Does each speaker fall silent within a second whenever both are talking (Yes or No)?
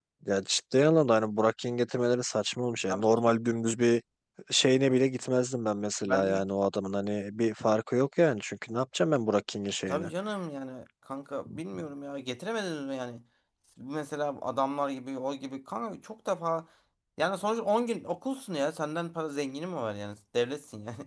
Yes